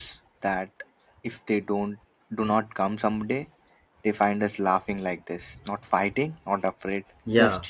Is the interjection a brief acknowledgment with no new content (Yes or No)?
No